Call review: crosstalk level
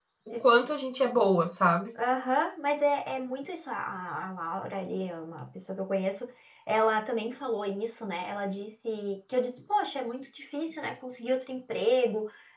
none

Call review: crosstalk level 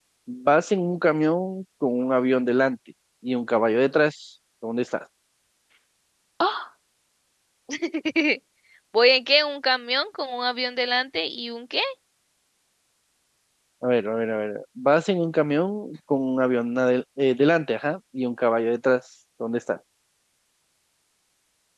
none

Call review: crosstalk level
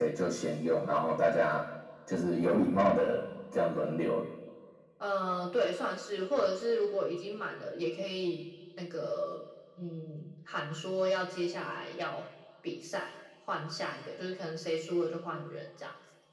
none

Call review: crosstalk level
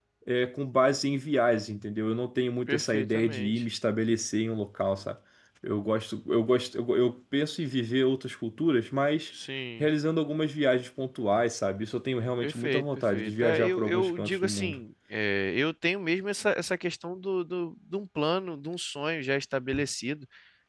present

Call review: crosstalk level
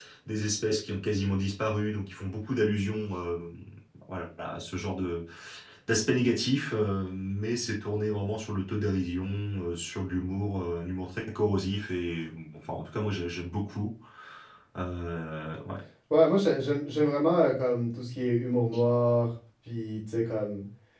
none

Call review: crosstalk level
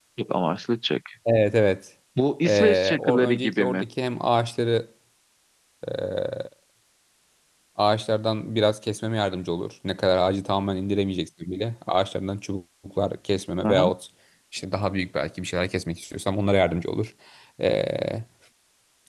present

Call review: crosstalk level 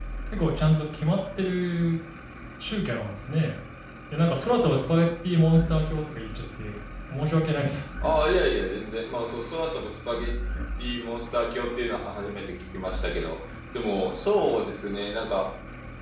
none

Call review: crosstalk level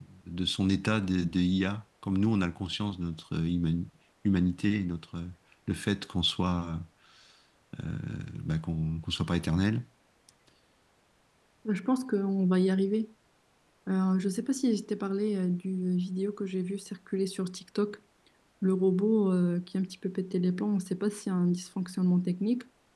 none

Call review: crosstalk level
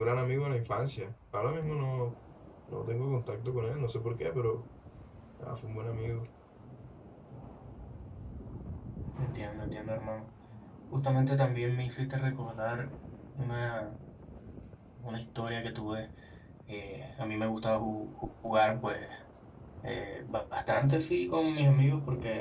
none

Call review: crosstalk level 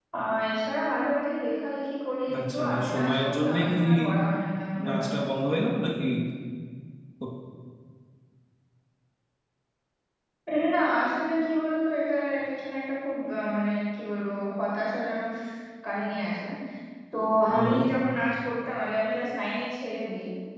present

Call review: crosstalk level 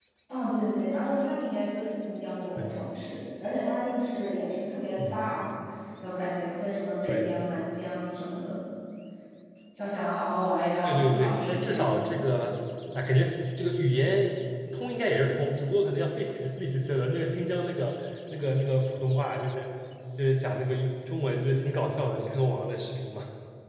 present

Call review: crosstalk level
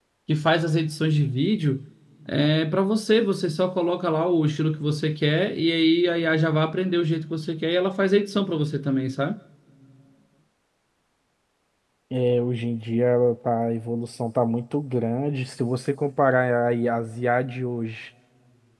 none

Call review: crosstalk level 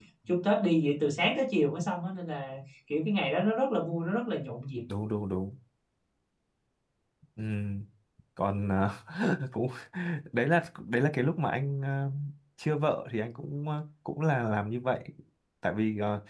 none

